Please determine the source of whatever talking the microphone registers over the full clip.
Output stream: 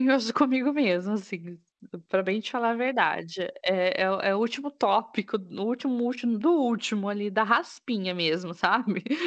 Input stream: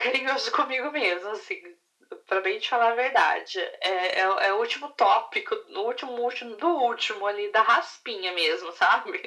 echo only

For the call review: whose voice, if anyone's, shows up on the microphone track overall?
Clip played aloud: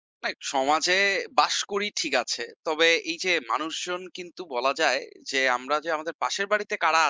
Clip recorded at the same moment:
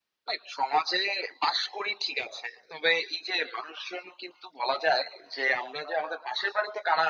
echo only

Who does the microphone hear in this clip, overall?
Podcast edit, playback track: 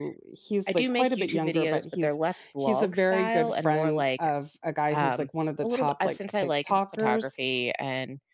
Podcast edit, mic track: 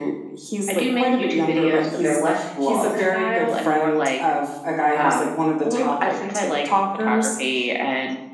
echo only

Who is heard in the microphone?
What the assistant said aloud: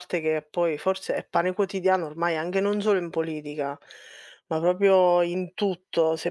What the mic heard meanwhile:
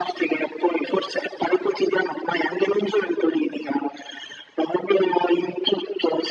echo only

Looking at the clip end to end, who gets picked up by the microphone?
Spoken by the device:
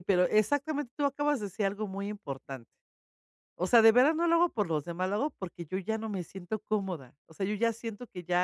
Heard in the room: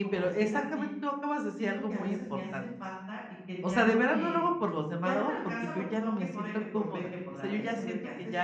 both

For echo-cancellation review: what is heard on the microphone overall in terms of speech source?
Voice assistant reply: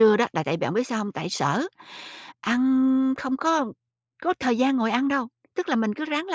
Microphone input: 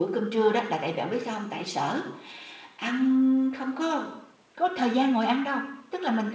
echo only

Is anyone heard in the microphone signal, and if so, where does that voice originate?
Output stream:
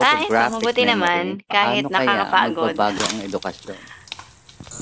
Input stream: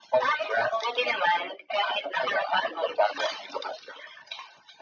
echo only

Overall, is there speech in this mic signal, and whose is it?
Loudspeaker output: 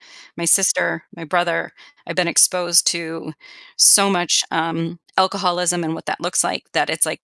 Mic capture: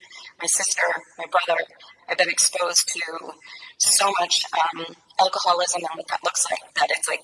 echo only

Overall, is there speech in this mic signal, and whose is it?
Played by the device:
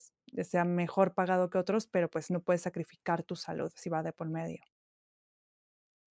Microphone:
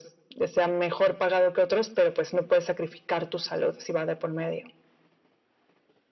echo only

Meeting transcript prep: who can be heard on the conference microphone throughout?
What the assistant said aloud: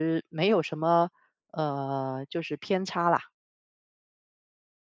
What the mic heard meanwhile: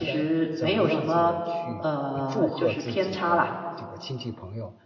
both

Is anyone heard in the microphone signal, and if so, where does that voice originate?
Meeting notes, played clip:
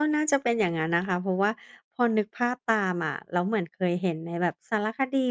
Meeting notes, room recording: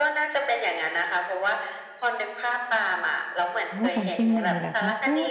both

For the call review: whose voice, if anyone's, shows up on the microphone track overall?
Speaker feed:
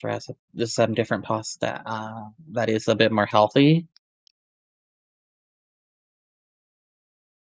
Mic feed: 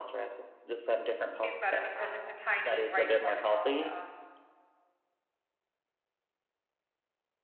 both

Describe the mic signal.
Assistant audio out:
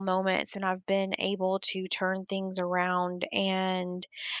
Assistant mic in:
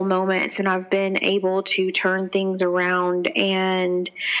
echo only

